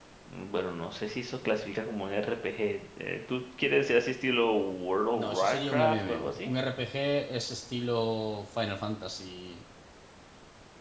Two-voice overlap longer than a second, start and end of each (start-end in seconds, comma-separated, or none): 5.1-6.5